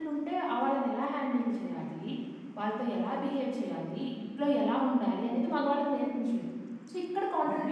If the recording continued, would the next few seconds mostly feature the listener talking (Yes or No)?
Yes